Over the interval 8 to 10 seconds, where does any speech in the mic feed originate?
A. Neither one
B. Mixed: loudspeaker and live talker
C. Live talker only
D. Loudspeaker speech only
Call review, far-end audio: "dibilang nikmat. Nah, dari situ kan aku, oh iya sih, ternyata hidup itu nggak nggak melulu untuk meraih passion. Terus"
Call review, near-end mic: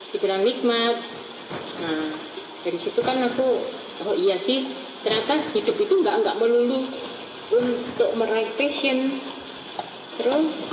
D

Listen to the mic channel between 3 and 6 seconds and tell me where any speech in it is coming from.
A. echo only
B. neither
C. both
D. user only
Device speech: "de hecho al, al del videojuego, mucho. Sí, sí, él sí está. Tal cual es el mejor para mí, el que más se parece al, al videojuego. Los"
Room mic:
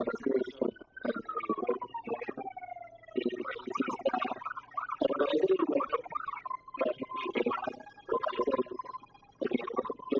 A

